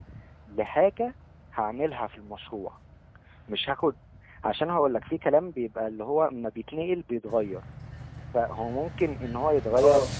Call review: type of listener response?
listening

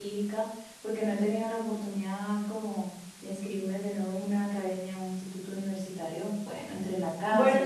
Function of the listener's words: taking over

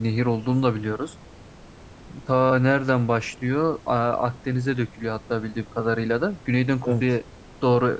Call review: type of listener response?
listening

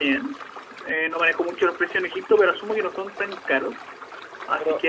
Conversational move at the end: taking over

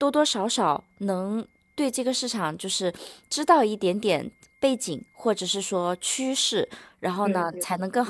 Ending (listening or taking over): listening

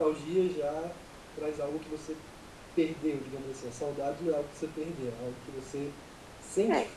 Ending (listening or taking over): listening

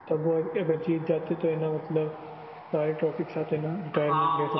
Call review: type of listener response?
taking over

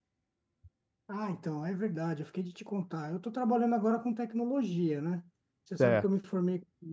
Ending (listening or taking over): listening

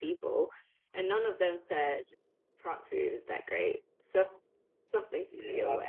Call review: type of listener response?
taking over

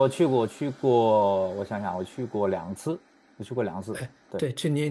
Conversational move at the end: taking over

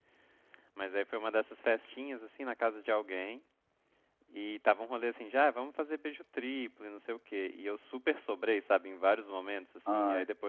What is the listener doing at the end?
listening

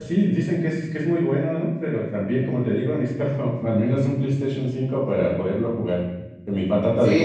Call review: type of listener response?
taking over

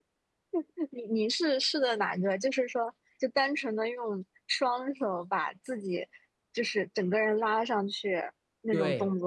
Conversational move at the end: taking over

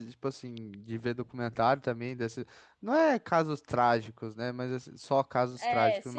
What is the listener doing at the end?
listening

